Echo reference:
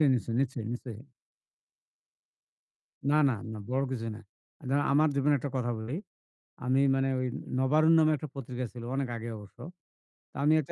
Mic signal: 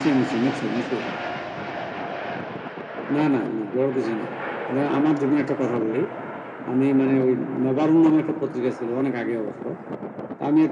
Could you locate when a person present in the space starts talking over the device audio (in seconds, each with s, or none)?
none